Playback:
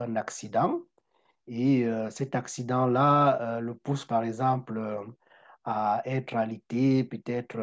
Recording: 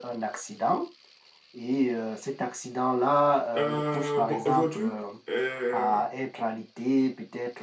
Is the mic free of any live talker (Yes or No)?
No